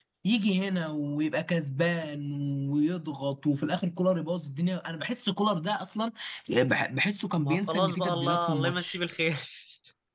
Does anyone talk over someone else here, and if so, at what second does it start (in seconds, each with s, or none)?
7.4 s